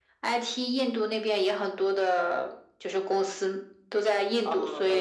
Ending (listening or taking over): taking over